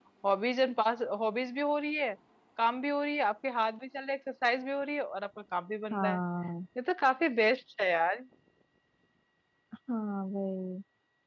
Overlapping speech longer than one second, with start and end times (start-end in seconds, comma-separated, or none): none